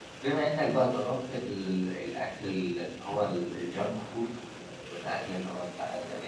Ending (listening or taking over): listening